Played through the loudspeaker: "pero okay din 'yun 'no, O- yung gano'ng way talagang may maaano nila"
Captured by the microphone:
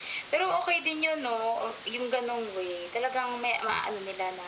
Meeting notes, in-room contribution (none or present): none